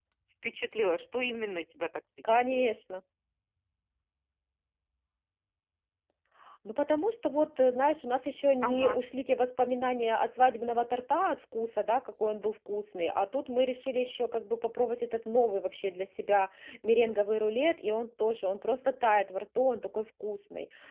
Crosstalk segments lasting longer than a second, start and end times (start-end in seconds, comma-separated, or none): none